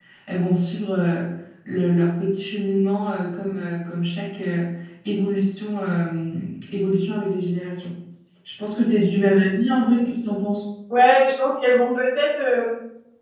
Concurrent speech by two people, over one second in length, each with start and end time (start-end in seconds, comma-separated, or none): none